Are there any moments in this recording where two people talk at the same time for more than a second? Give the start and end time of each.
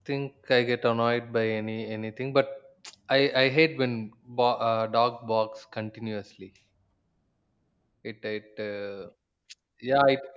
none

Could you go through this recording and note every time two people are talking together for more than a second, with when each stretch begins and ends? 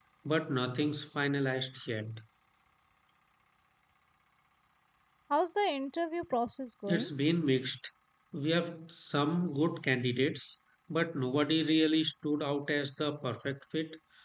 none

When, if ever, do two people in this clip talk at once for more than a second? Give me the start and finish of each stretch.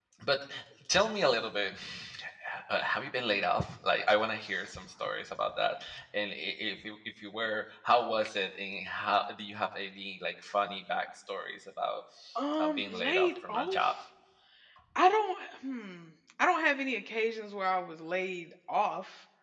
12.6-13.9

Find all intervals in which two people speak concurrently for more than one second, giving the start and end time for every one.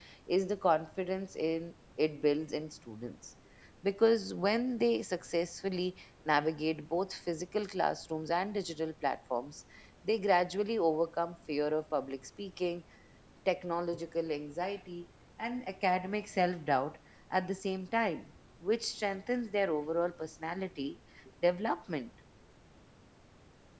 none

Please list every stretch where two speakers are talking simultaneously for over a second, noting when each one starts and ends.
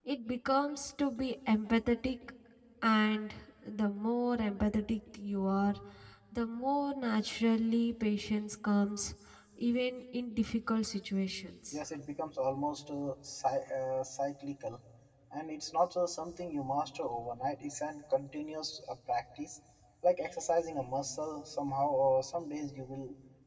none

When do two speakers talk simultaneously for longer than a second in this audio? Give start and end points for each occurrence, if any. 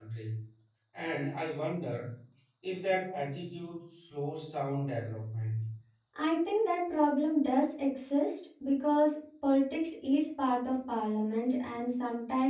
none

